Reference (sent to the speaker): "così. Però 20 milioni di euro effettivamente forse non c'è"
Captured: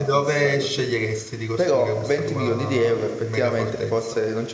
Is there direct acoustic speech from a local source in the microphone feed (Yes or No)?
Yes